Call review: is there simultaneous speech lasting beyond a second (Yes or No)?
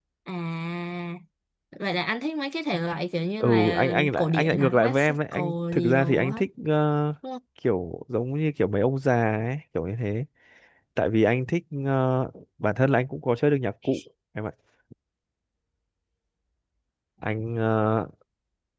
Yes